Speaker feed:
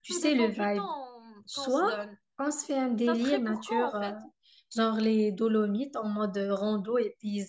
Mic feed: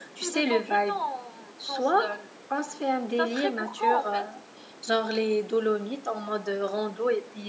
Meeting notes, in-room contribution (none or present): none